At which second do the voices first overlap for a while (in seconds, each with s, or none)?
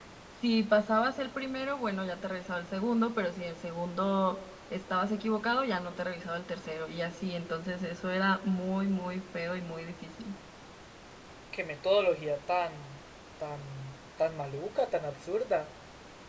none